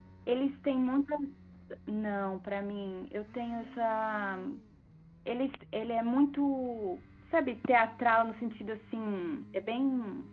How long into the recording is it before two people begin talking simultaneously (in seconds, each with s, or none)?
none